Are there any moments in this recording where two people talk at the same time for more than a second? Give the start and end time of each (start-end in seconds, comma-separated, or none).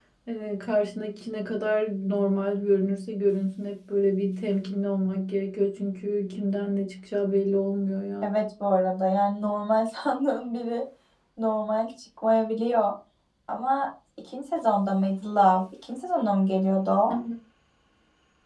none